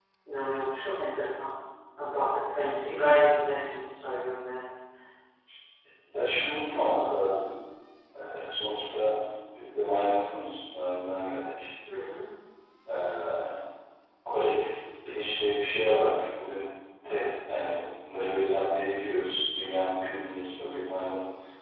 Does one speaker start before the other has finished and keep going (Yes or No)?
No